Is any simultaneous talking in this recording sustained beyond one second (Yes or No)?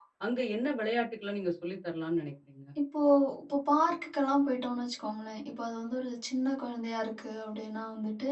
No